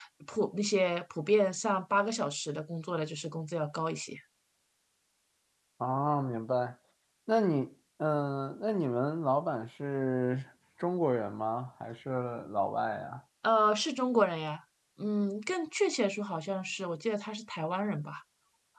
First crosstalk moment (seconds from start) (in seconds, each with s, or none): none